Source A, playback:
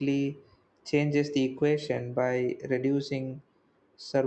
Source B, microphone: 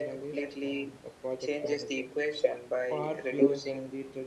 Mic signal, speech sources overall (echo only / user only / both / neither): both